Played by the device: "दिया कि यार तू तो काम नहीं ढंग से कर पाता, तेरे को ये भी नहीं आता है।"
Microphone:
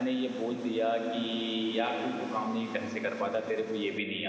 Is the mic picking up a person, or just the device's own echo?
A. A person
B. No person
B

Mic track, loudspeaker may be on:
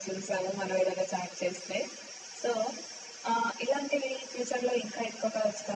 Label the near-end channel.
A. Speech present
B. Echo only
B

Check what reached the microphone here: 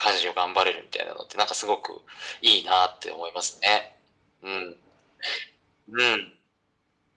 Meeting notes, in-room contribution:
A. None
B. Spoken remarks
A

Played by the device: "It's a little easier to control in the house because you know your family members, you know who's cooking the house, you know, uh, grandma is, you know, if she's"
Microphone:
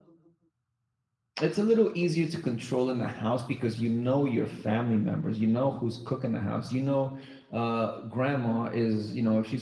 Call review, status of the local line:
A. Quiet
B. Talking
A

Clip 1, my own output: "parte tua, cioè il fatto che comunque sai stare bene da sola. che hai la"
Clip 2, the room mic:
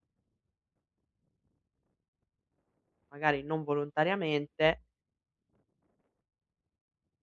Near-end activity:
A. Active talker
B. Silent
A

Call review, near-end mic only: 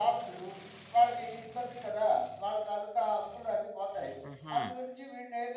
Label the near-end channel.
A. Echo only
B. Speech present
B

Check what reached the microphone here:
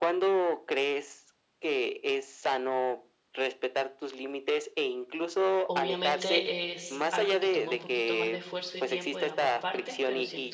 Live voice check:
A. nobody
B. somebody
B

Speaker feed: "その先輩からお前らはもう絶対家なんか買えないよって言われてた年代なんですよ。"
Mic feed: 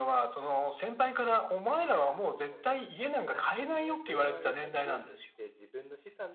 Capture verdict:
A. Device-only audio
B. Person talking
B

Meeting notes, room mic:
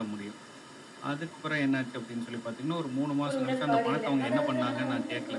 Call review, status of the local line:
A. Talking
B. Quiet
A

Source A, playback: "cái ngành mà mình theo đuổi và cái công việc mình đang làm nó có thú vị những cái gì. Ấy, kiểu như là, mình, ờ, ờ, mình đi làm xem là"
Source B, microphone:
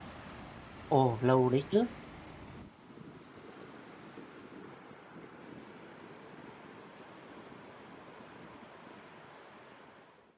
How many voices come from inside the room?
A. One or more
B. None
A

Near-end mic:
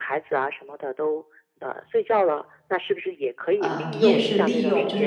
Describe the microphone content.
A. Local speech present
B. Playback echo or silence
A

